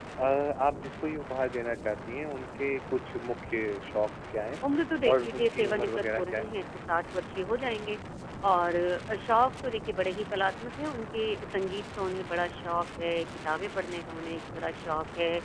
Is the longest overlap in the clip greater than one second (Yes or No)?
Yes